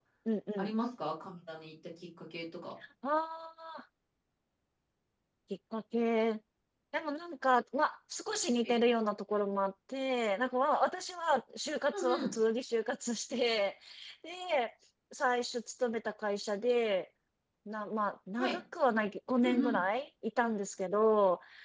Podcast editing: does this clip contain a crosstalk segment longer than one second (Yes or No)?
No